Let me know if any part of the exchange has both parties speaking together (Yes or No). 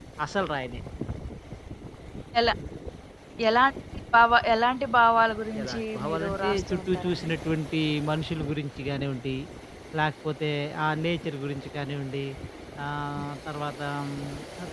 Yes